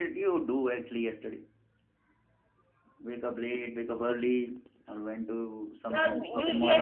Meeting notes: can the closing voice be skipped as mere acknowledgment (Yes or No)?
No